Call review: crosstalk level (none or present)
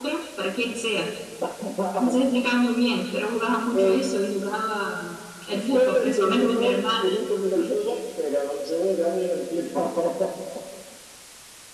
present